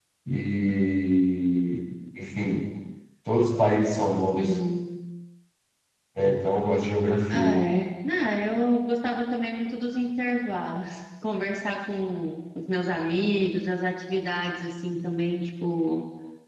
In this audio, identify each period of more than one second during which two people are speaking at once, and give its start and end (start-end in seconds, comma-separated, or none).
none